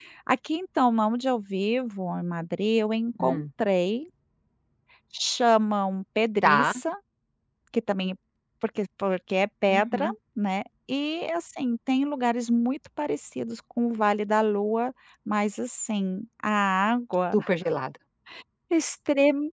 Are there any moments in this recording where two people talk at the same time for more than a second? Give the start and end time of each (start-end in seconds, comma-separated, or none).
none